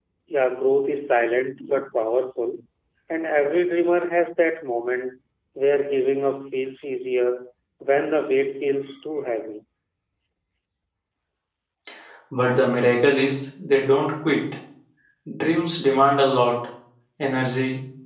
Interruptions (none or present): none